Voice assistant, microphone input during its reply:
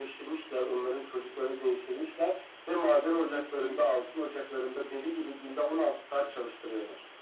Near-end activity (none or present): present